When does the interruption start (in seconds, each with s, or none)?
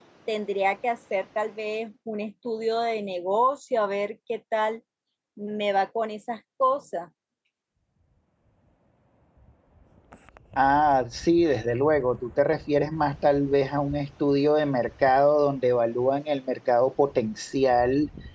none